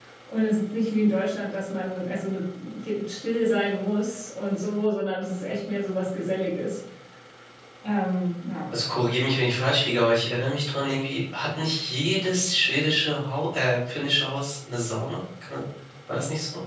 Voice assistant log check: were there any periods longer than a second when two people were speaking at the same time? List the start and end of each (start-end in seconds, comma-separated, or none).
none